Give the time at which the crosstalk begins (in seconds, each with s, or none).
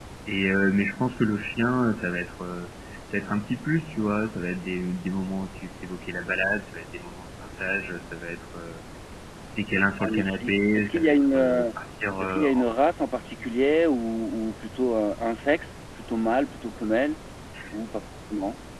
10.0 s